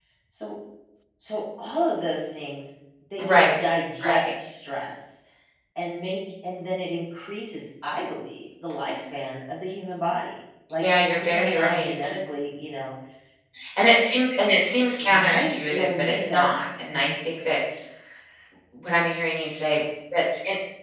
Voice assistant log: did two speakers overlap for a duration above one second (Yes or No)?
Yes